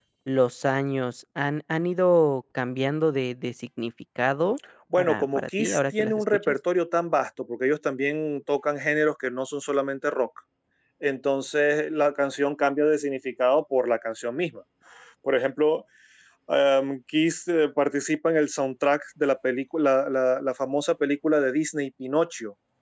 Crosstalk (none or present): present